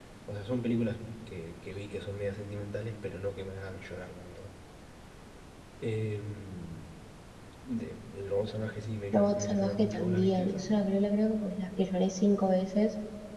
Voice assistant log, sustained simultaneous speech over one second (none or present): present